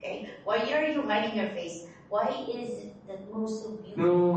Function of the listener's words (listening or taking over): taking over